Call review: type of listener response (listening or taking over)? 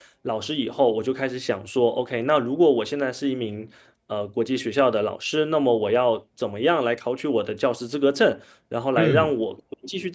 listening